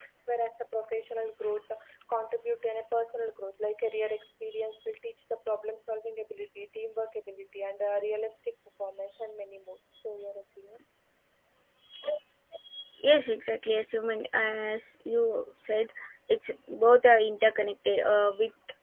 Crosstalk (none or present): none